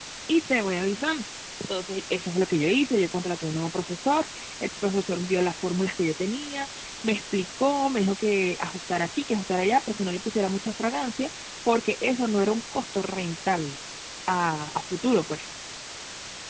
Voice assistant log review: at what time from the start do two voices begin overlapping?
none

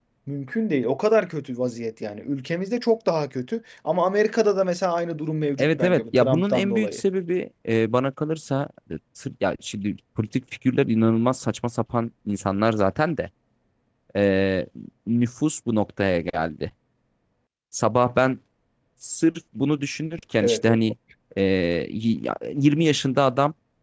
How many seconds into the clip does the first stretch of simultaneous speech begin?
5.6 s

